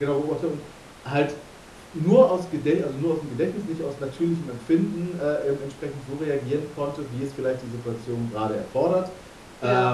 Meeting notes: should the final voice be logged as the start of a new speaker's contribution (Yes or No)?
No